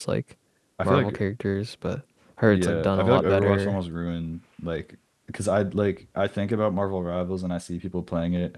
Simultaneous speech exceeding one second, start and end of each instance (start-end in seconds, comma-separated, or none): 2.5-3.8